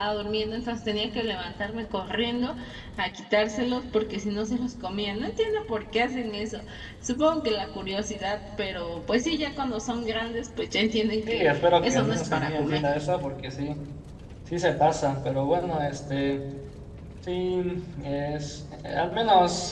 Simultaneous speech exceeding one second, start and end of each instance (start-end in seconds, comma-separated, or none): 11.3-12.8